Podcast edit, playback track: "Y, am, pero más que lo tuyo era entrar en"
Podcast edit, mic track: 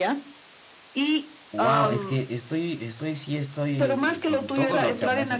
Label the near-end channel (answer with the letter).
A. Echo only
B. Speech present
B